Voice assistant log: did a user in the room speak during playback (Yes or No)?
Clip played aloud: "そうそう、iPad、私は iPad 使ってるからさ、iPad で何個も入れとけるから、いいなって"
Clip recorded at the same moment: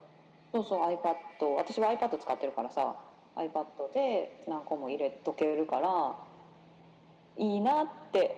No